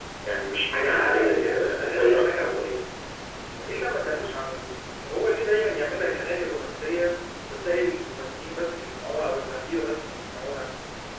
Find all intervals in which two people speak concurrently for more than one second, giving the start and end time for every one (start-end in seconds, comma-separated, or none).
0.9-2.8